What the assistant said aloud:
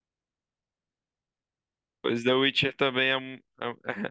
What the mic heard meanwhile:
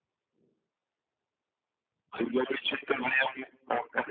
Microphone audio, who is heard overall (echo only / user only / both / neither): echo only